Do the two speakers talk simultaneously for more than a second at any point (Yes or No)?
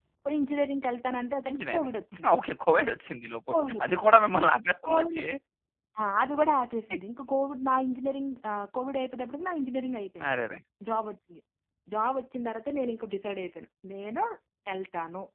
No